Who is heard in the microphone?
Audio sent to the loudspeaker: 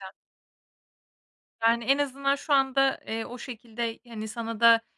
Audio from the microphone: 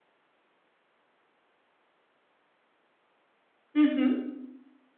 user only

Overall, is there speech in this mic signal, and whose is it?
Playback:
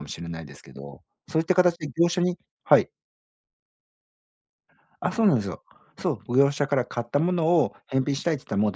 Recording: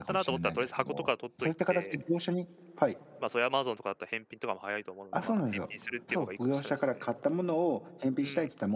both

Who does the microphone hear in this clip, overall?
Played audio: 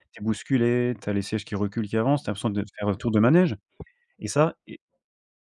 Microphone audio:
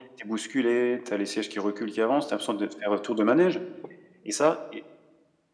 echo only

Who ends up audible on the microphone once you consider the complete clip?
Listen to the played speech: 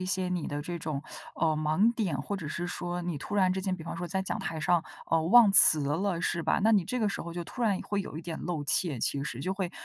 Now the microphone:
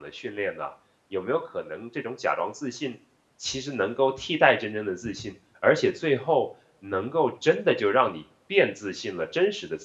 user only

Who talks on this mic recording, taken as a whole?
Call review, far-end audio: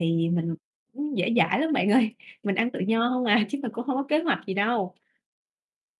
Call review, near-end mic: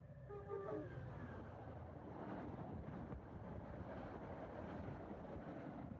neither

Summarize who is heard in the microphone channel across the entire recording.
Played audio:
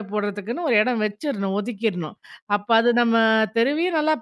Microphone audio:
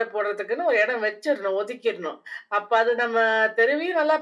echo only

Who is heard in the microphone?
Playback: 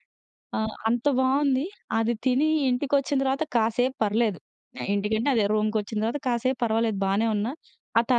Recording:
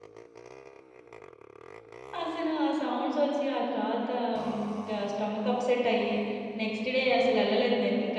user only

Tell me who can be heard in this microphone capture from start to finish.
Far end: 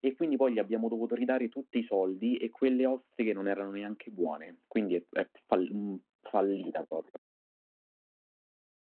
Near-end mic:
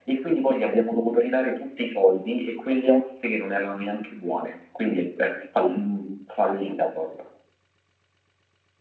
echo only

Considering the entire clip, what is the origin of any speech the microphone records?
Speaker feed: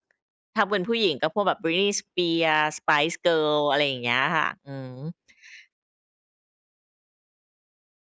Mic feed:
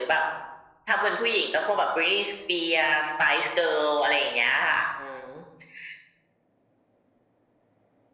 echo only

